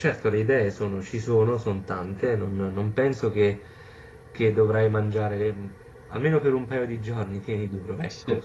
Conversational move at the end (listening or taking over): taking over